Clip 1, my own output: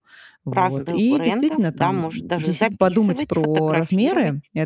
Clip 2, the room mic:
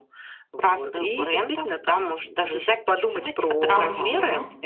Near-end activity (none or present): present